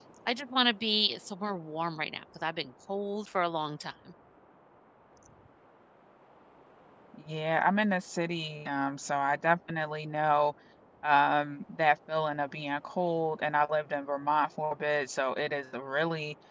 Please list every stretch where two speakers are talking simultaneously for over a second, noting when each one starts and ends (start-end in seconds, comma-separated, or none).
none